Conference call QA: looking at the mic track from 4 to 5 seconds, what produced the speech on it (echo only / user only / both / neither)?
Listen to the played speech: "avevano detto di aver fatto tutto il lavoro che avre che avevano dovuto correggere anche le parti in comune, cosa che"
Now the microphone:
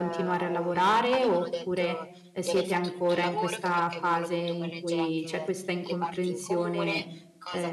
both